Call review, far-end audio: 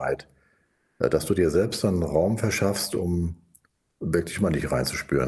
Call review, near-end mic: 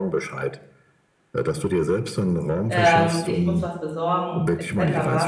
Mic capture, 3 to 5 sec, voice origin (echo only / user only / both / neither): both